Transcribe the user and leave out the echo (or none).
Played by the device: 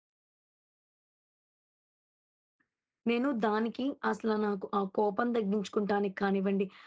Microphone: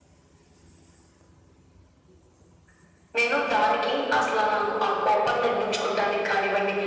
none